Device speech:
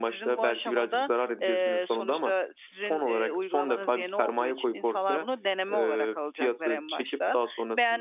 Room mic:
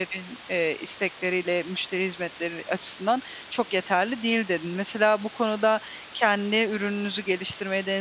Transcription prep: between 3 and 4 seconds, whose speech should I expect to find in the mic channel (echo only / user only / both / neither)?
user only